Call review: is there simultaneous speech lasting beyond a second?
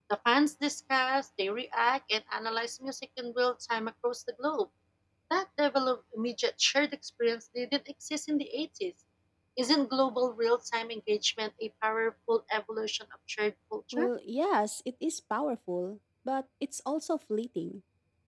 No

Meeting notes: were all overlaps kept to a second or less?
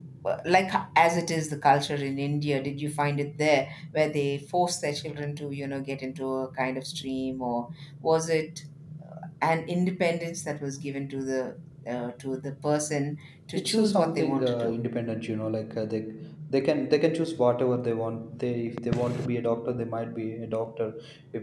No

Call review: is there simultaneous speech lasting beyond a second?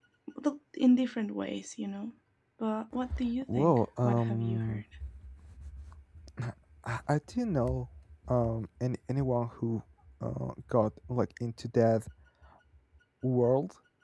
Yes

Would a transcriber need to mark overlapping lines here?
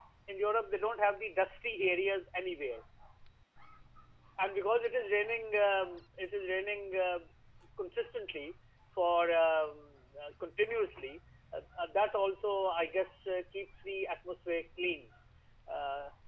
No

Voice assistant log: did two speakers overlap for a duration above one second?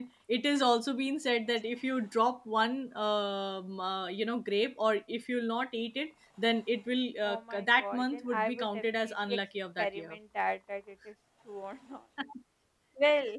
Yes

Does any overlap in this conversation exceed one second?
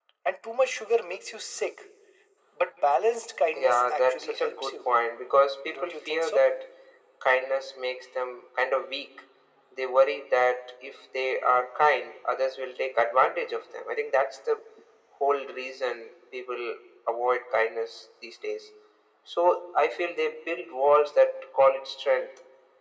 Yes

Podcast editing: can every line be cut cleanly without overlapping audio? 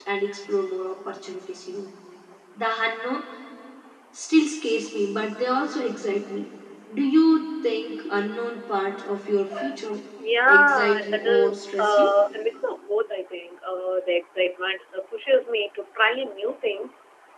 No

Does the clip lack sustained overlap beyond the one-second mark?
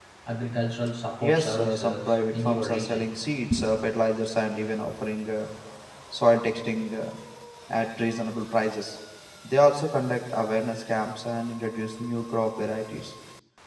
No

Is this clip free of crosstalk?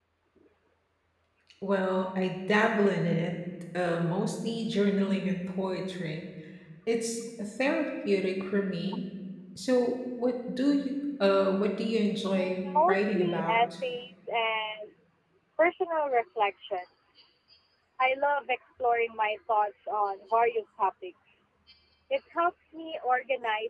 No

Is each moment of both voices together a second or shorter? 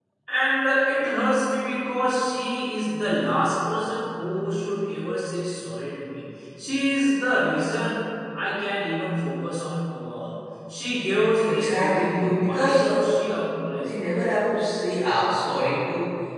No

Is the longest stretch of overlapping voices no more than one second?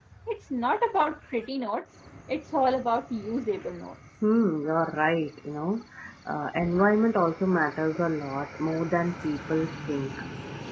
Yes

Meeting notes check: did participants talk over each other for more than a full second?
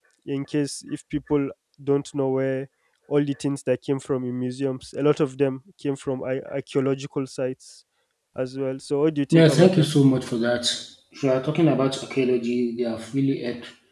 No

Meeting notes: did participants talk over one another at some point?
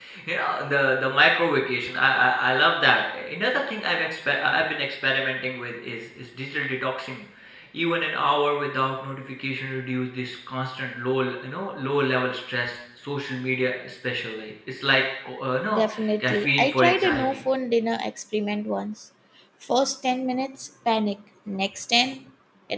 Yes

